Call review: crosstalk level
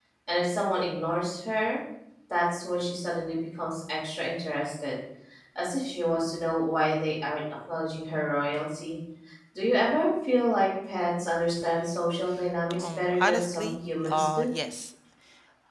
present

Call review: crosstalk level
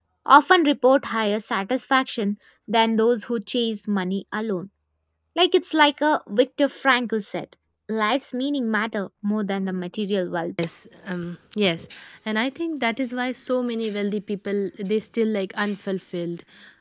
none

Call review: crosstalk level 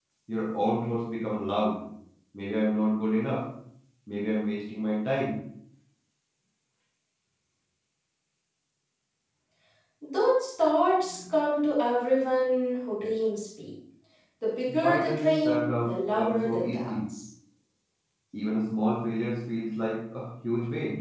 present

